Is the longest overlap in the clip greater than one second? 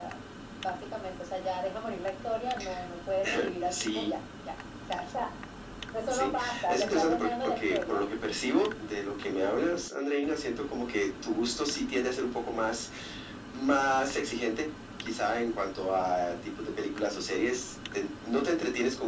Yes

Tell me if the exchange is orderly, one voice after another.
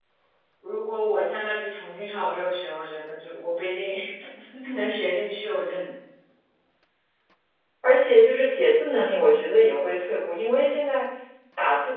Yes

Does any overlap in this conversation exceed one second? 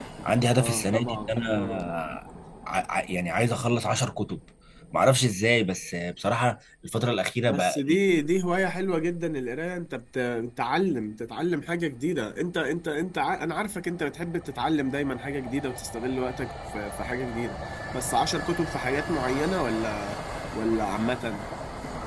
Yes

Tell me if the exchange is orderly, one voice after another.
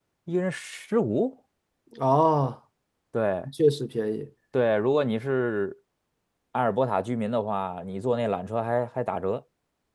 Yes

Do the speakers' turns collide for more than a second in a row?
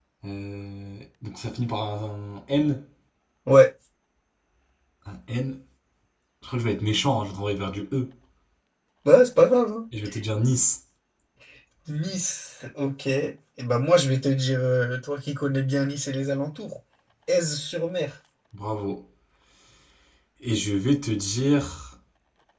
No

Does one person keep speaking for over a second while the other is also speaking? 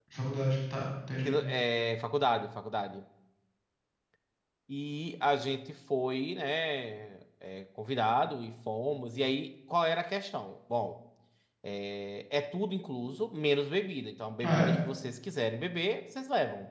No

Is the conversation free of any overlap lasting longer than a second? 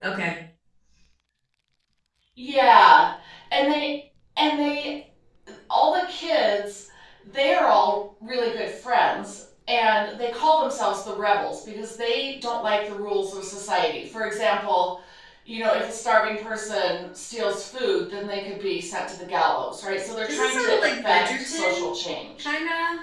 No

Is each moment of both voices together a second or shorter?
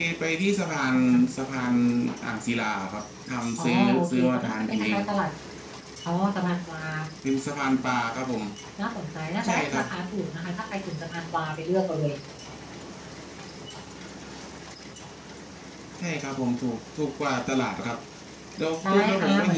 No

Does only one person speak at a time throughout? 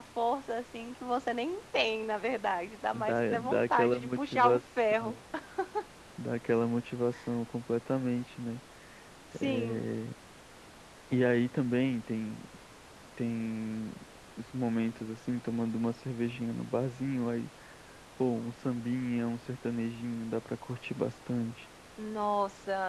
No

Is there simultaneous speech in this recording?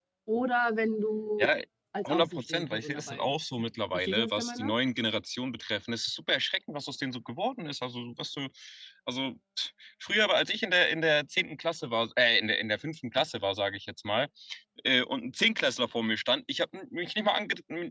Yes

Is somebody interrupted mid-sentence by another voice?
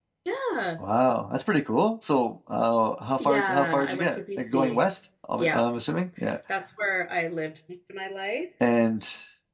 Yes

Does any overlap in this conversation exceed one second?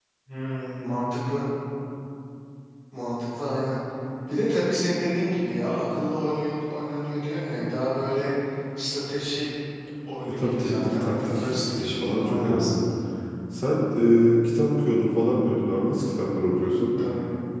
Yes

